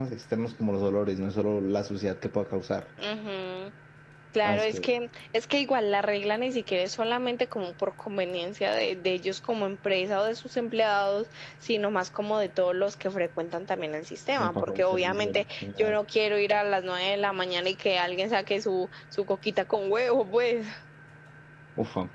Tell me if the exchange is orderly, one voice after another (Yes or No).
No